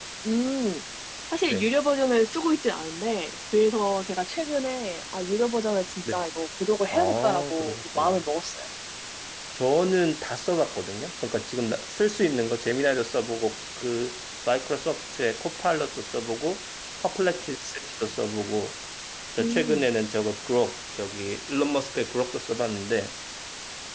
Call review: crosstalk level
present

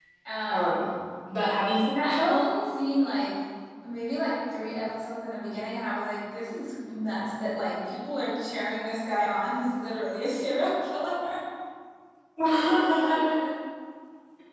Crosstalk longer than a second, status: none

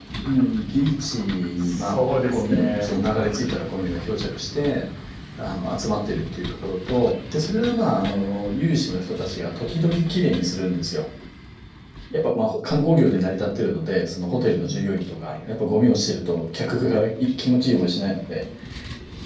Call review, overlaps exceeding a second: present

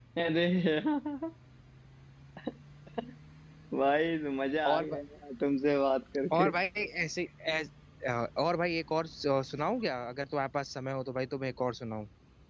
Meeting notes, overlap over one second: none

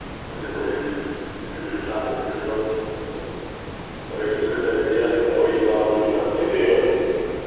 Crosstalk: present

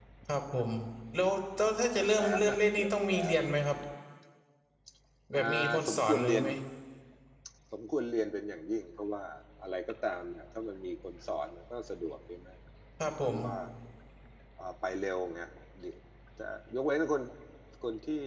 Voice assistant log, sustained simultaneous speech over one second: present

